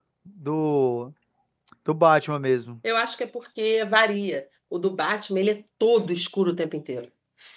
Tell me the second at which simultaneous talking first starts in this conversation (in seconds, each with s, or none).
none